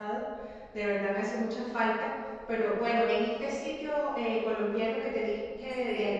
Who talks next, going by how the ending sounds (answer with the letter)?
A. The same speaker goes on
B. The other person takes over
A